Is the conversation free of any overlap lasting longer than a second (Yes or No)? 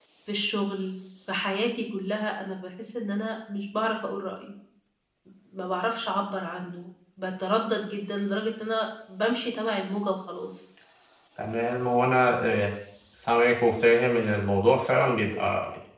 Yes